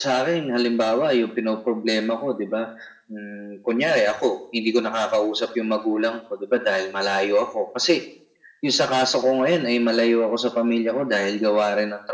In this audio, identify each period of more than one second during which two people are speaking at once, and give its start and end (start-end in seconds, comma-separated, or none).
none